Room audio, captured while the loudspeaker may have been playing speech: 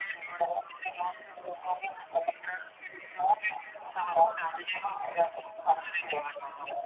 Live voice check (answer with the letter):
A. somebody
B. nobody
B